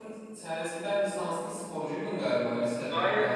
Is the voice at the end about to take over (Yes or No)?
Yes